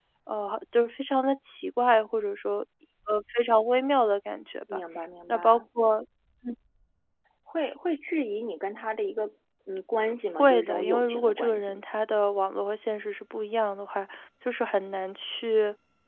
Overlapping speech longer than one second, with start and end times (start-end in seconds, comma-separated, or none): 10.4-11.8